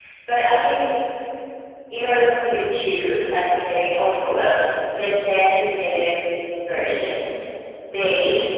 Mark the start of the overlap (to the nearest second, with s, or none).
none